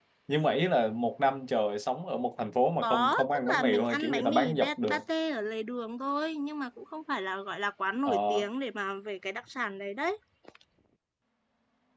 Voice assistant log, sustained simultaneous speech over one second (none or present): present